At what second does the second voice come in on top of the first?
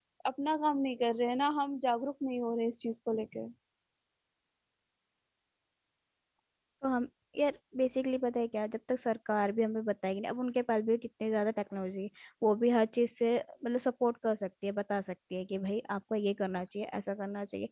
none

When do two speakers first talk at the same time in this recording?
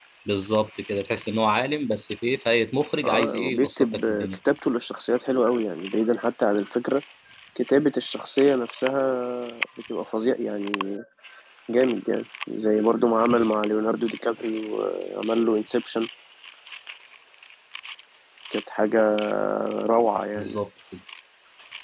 3.0 s

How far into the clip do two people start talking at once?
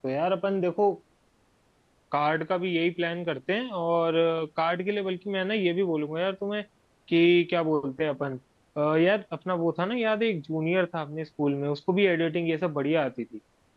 none

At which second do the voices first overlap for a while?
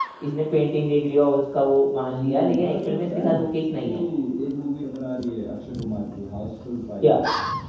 2.1 s

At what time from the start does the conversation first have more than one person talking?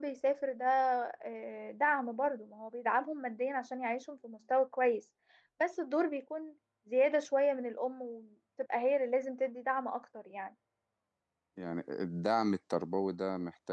none

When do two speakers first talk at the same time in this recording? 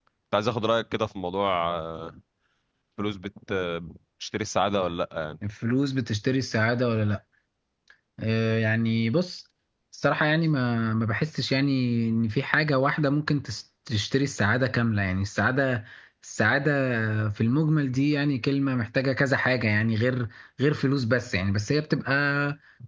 none

